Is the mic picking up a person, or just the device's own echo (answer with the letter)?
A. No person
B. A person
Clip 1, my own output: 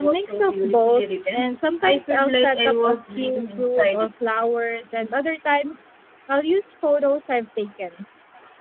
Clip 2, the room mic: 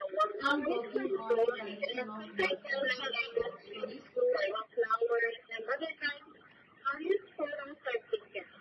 B